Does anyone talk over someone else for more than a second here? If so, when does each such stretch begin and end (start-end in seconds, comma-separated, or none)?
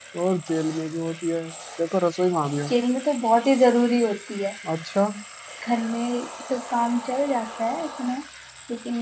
none